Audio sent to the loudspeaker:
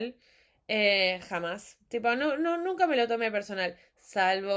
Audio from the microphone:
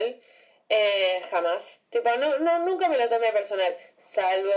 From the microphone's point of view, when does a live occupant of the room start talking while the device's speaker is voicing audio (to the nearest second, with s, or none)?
none